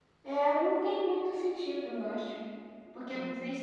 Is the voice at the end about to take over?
No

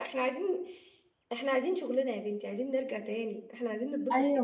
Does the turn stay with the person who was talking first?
No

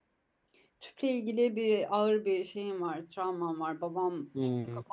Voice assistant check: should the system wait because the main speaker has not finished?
Yes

